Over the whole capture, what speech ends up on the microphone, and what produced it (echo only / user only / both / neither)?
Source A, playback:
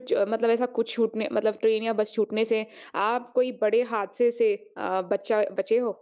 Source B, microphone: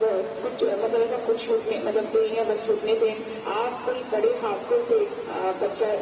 echo only